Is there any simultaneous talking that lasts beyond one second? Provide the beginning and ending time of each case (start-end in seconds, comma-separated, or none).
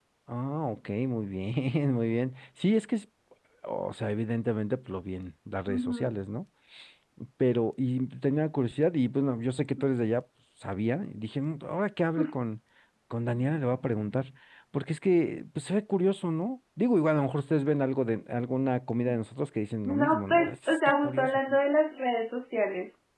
19.9-21.4